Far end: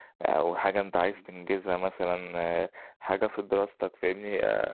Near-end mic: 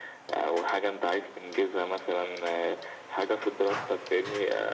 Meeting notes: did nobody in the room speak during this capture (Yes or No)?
Yes